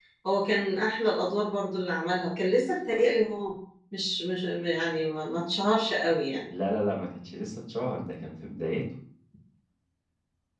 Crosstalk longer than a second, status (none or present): none